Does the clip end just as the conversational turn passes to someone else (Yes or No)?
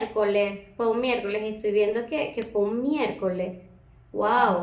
Yes